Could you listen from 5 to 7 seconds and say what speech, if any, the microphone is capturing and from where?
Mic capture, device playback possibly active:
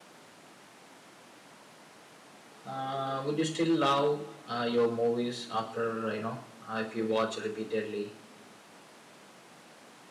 user only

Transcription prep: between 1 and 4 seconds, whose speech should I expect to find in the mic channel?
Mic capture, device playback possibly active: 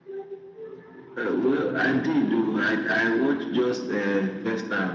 echo only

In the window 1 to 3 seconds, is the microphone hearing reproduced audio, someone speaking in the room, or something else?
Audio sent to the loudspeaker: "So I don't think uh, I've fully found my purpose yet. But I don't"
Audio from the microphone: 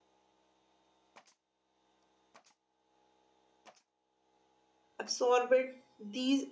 neither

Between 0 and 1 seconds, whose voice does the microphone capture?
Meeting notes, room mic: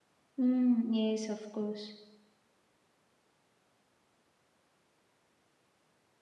user only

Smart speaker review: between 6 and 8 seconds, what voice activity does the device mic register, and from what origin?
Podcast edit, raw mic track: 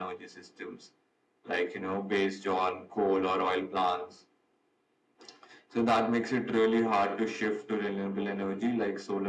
echo only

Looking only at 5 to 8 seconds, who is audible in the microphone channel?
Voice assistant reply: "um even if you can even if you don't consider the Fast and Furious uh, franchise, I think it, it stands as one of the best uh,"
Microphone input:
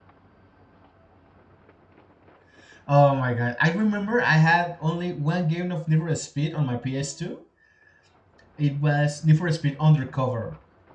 user only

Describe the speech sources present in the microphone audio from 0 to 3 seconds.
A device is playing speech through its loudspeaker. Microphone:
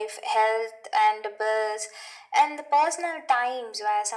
echo only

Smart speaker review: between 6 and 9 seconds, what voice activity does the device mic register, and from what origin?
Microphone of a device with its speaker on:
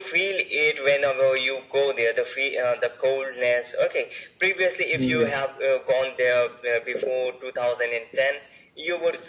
echo only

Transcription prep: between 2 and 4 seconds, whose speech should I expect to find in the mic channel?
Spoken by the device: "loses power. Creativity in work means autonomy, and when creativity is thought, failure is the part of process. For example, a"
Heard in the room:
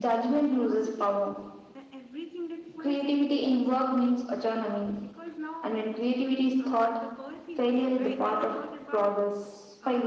both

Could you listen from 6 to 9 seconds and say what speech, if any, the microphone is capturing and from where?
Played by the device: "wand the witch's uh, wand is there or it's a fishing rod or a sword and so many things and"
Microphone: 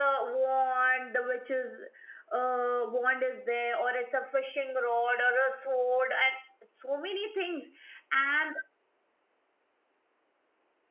echo only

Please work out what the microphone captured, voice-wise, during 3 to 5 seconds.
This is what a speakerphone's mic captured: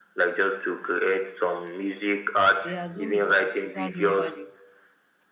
both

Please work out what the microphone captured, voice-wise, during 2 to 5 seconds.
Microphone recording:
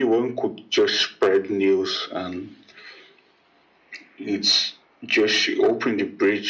echo only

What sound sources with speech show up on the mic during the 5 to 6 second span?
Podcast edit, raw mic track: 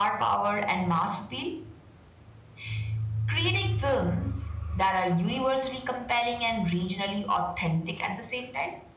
user only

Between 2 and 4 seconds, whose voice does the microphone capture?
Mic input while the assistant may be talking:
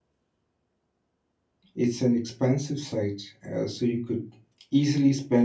user only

